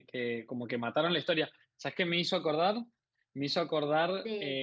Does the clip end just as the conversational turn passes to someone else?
No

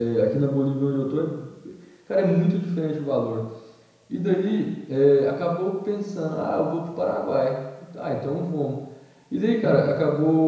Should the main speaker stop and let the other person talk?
No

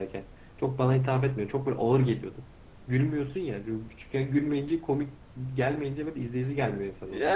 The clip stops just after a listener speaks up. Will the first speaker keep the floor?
No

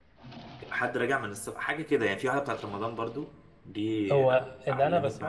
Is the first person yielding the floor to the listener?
Yes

